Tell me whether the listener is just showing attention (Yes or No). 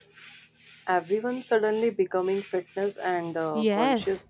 No